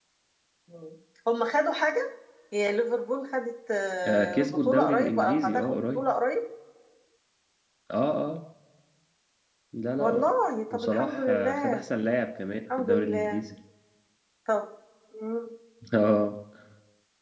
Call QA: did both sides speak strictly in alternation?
No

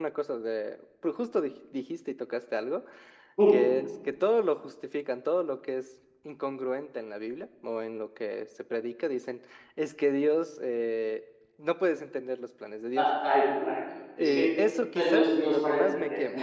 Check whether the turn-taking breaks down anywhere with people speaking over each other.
Yes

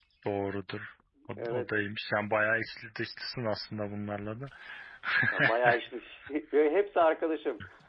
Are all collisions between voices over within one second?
Yes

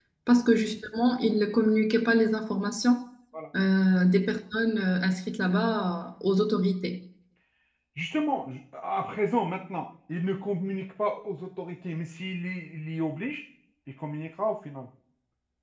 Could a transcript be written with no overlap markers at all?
Yes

